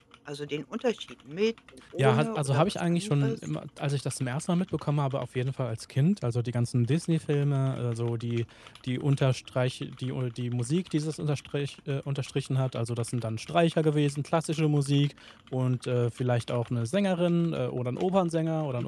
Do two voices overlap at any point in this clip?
Yes, from 2.0 s

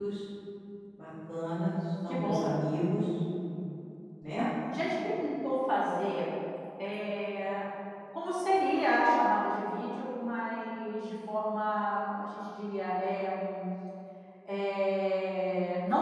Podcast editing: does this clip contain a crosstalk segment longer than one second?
No

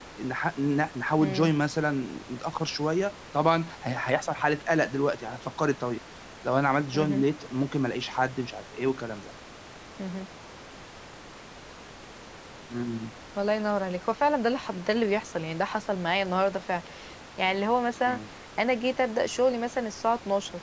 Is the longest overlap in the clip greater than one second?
No

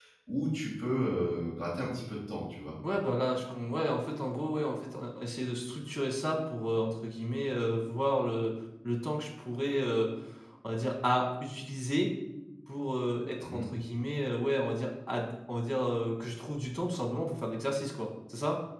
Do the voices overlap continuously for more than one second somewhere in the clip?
No

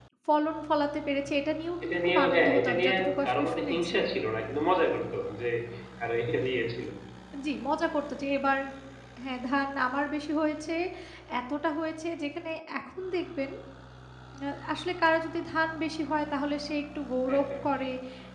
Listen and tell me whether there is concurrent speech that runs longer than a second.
Yes, from 1.8 s

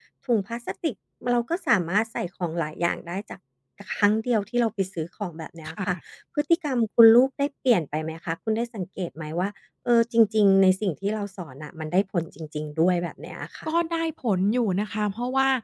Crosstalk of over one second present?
No

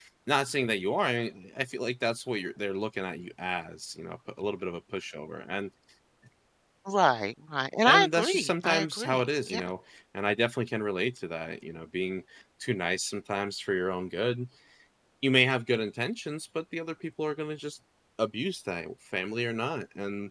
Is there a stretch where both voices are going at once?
Yes, from 7.8 s

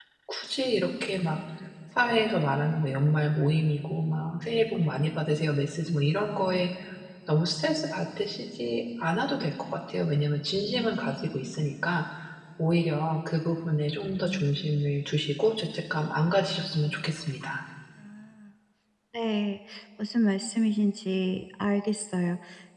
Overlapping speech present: No

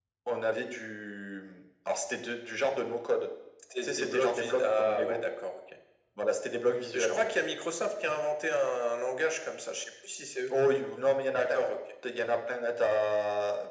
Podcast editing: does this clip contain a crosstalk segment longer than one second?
Yes, from 3.8 s

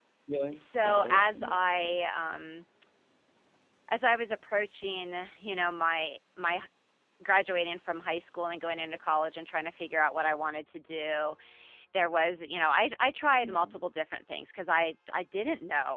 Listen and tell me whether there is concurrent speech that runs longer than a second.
Yes, from 0.5 s

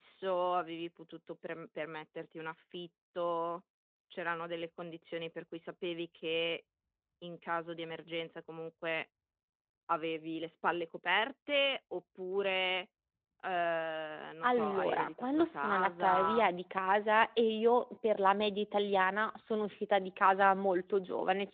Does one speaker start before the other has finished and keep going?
Yes, from 14.4 s

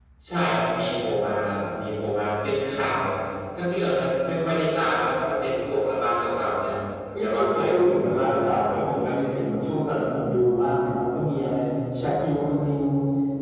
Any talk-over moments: Yes, from 7.2 s

